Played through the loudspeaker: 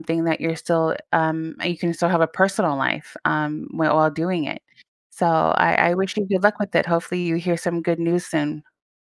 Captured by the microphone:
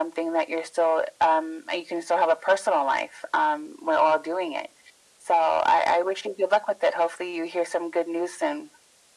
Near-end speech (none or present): none